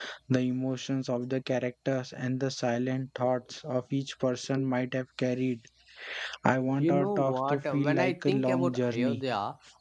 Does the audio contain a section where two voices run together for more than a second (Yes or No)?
Yes